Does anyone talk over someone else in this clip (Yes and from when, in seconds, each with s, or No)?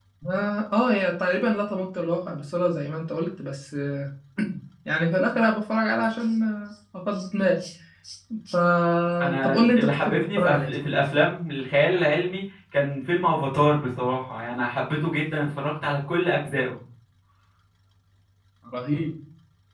Yes, from 9.4 s